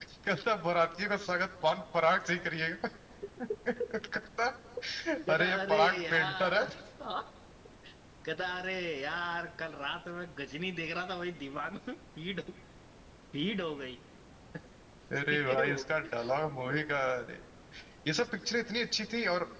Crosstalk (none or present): present